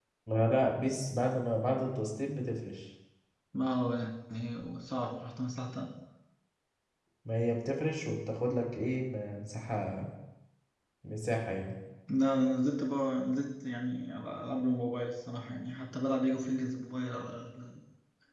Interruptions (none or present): none